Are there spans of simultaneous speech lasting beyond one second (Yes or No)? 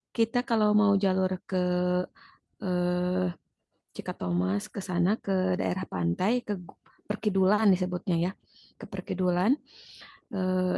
No